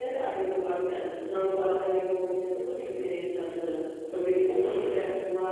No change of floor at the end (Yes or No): Yes